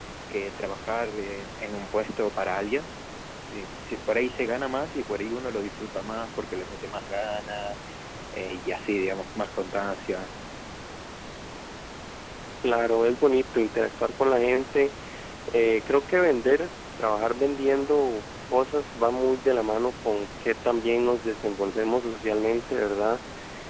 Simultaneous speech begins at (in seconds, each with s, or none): none